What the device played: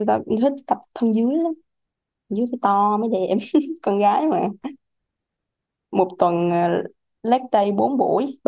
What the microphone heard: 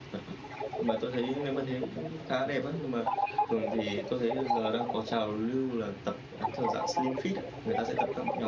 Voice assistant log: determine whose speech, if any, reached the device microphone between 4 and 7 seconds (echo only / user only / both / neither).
both